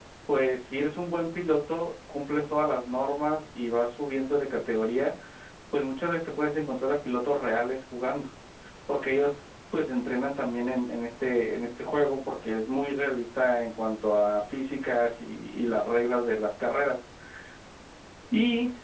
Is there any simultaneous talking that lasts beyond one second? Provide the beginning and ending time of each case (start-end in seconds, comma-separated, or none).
none